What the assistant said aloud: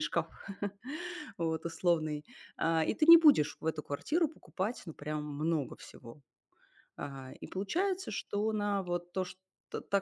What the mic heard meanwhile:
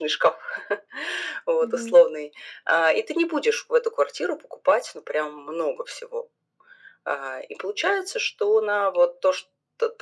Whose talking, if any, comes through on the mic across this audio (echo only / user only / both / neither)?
both